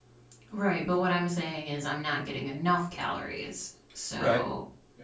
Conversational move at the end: taking over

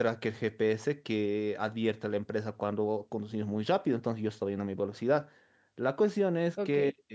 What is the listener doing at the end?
listening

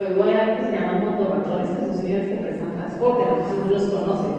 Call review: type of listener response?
taking over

